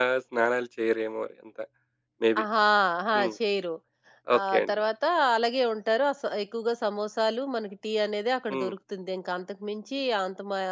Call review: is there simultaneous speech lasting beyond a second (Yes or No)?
No